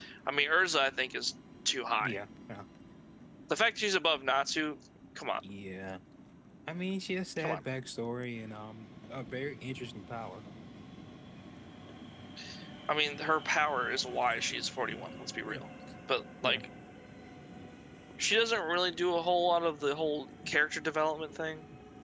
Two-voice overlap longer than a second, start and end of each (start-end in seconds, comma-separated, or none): none